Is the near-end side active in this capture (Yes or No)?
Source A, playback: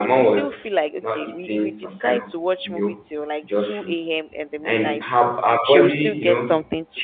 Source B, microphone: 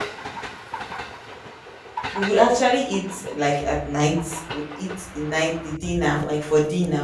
Yes